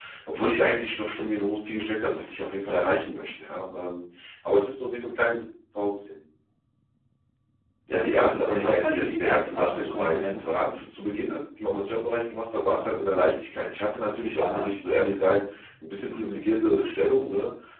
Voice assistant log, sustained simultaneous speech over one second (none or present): present